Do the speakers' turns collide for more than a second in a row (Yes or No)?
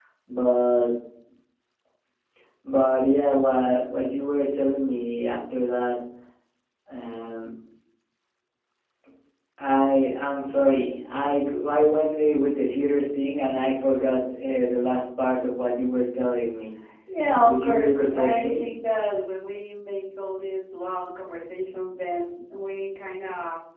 Yes